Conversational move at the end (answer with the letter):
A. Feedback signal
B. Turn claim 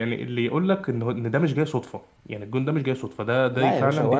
B